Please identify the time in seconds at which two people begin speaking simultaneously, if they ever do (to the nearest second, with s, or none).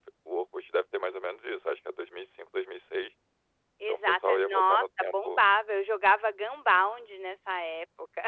4 s